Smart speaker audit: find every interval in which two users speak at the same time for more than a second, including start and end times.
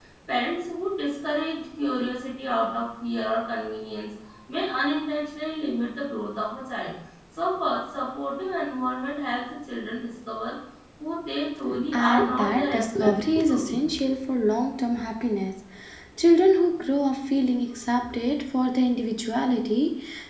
11.9-13.8

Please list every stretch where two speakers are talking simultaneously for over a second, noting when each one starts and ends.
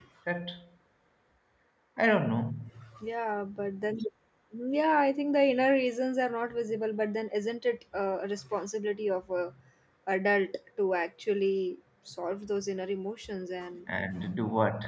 none

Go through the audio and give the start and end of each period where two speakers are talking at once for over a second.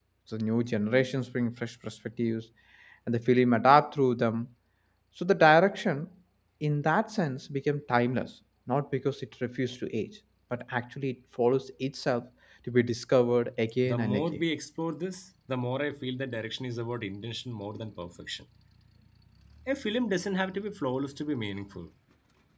none

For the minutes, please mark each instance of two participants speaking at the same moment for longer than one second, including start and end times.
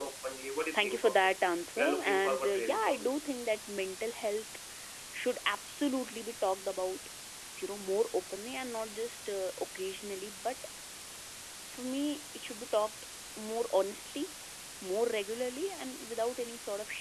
1.8-3.1

